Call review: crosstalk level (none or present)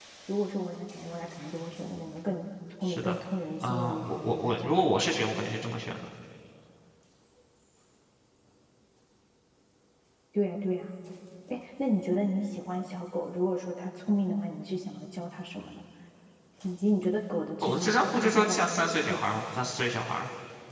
present